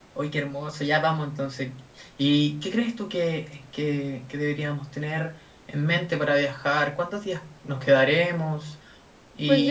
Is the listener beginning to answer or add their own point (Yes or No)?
Yes